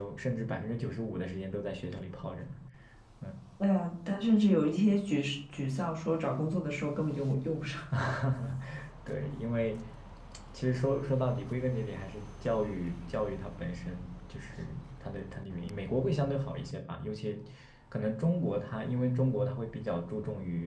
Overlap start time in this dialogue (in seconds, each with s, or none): none